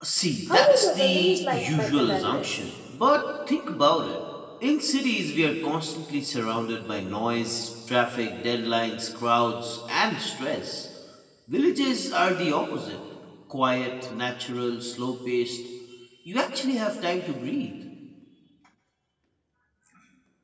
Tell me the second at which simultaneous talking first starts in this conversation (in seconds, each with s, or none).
0.5 s